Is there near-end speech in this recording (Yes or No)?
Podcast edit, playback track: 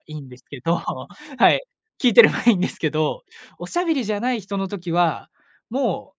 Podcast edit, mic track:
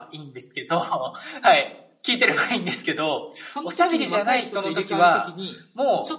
Yes